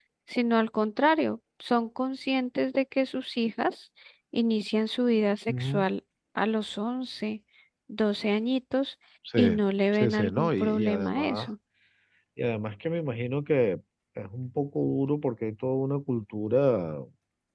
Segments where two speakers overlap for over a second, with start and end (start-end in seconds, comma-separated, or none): 9.9-11.5